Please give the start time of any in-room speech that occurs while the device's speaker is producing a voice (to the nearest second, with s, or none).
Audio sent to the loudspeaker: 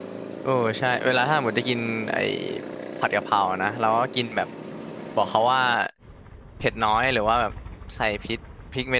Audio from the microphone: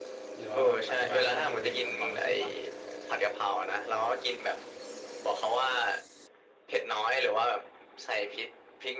0 s